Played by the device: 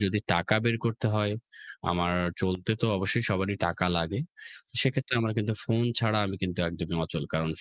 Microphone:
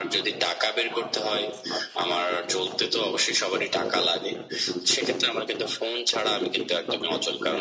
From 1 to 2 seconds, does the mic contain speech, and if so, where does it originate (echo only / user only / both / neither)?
both